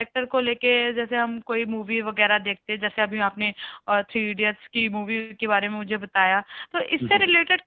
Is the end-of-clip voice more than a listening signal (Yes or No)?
No